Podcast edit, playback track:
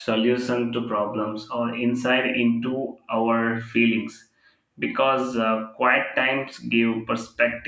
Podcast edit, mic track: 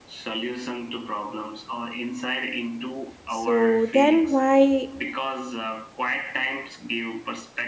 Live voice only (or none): So then why